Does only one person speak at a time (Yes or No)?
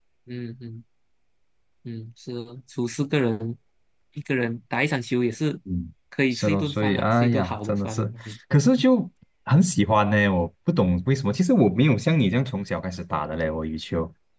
No